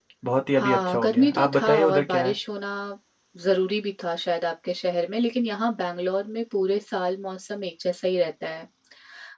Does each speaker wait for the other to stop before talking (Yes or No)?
No